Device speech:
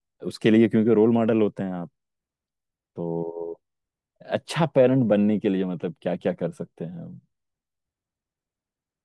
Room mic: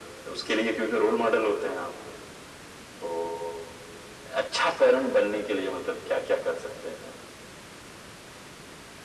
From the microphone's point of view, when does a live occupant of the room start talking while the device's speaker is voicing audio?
none

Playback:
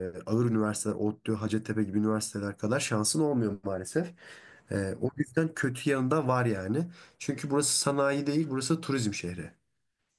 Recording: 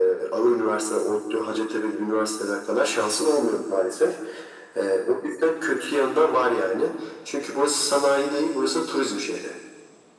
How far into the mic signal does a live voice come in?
none

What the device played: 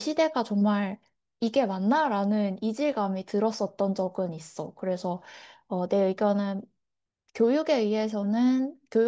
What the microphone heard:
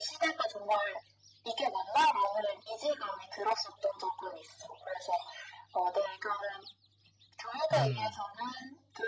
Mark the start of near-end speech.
7.7 s

